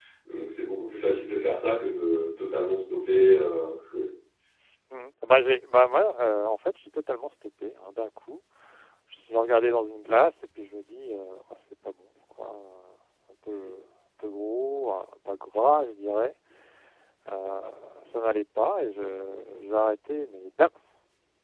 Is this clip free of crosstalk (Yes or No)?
Yes